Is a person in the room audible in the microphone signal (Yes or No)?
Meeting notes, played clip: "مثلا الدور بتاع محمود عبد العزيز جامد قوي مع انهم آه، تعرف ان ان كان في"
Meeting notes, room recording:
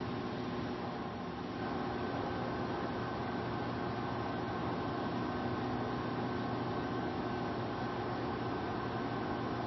No